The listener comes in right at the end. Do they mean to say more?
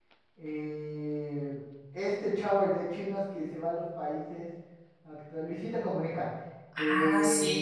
No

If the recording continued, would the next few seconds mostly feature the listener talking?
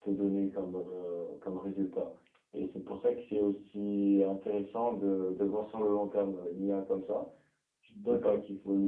No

